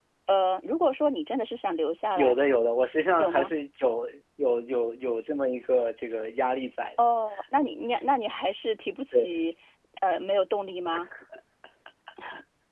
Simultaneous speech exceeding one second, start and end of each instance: none

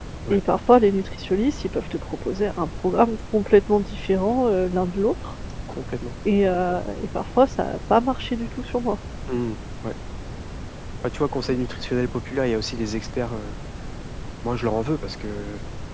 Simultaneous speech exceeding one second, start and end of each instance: none

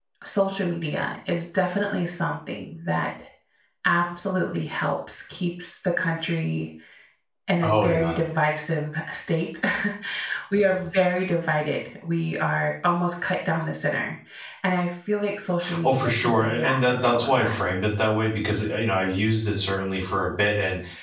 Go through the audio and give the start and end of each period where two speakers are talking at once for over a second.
15.8-17.5

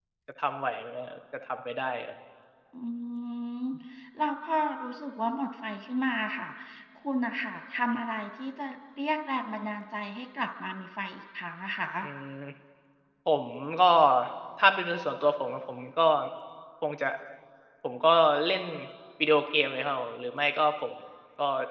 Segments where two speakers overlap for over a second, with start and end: none

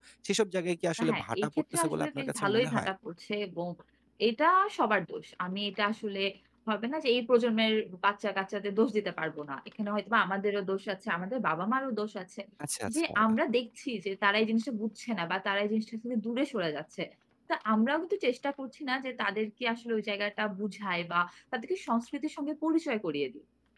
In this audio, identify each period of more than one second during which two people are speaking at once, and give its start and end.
1.1-2.9

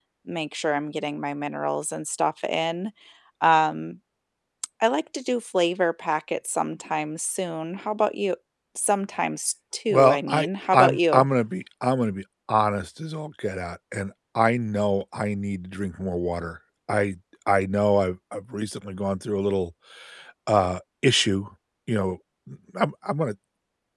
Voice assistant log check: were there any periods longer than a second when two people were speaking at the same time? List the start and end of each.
9.9-11.2

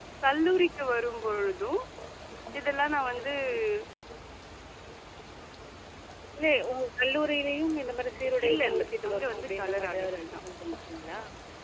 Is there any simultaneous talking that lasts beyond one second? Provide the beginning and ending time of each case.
8.5-10.4

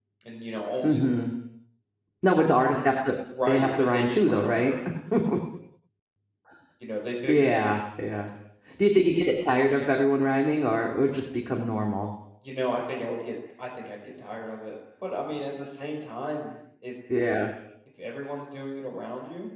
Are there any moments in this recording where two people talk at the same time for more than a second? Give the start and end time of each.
3.5-4.7

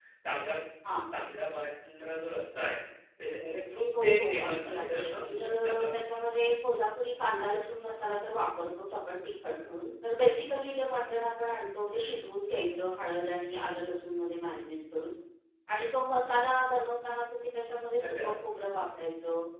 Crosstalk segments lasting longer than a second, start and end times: 4.0-5.8

